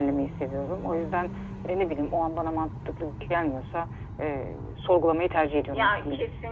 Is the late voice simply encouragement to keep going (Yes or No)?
No